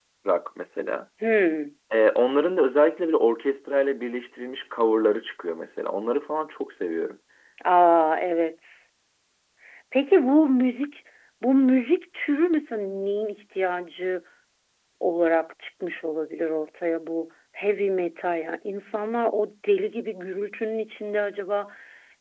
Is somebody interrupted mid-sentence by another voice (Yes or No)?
No